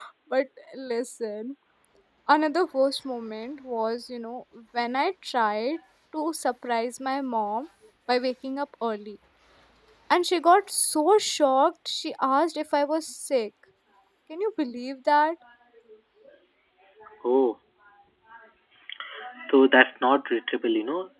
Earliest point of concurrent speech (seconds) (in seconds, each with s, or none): none